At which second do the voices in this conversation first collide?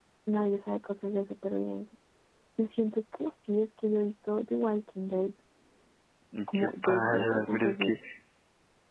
7 s

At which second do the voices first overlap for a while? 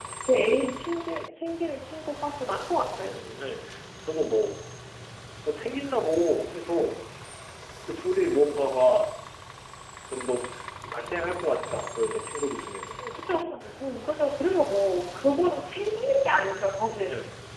none

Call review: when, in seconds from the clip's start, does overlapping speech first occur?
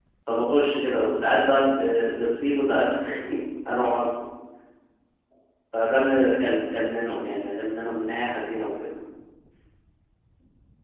none

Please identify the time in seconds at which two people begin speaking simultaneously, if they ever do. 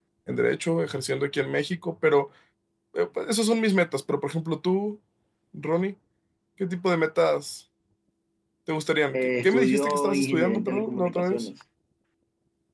9 s

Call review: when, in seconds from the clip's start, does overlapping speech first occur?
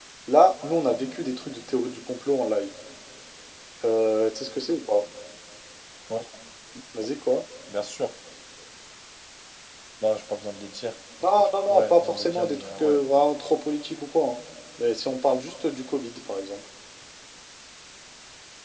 11 s

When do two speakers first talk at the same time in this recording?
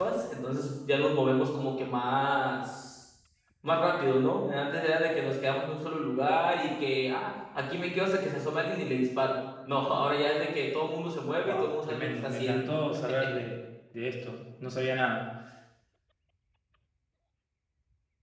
11 s

